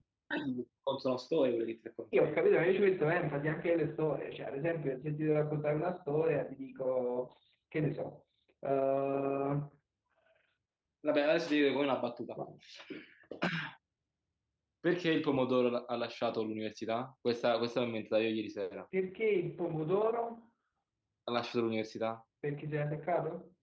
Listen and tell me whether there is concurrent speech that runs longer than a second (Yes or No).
No